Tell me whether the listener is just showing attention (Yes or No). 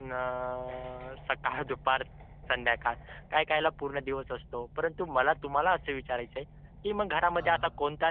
Yes